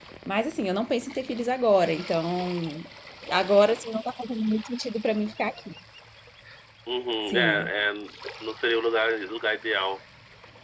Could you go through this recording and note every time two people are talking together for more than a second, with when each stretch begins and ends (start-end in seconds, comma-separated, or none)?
none